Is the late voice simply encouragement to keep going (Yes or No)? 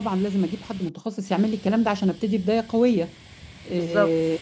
Yes